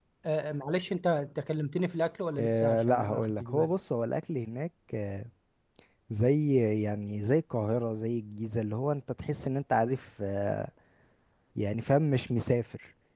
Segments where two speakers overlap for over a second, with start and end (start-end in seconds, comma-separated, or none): 2.4-3.7